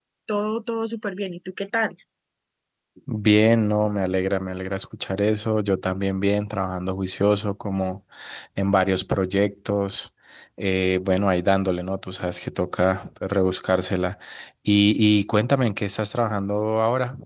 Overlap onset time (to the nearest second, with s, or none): none